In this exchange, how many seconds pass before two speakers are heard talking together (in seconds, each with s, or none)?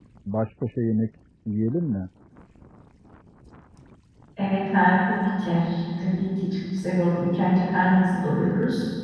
none